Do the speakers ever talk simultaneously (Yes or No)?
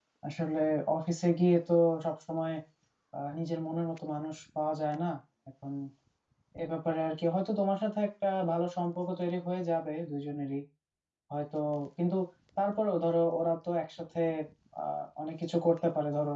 No